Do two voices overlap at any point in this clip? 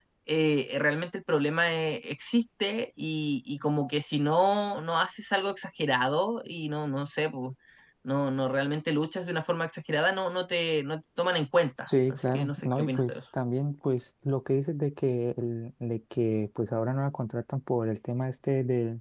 Yes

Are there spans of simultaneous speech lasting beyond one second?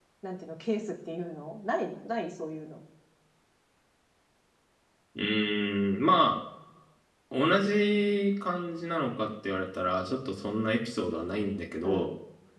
No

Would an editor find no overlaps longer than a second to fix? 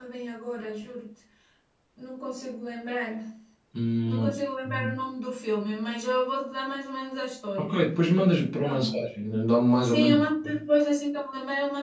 Yes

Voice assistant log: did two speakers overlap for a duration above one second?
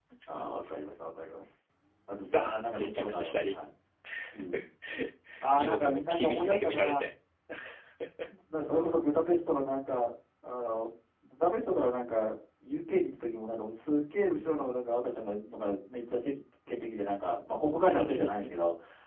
Yes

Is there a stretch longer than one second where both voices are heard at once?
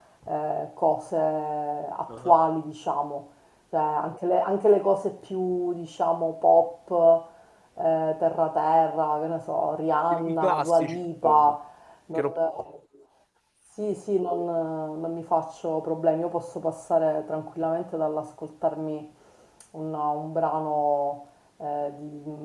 Yes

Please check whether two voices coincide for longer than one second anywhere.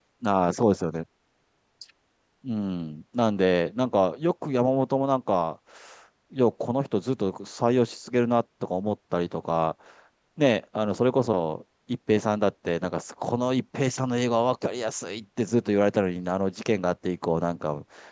No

